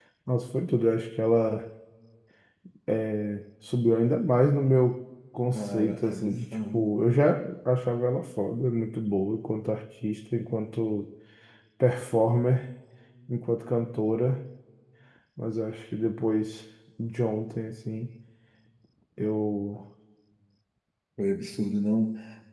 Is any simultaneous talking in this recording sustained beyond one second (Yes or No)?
Yes